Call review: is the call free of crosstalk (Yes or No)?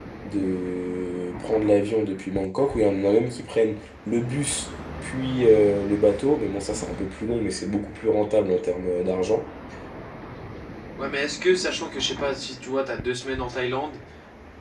Yes